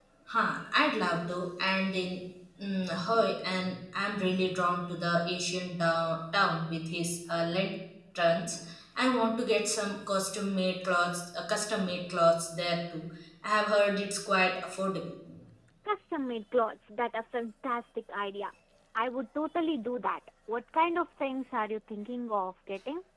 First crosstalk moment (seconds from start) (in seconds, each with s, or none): none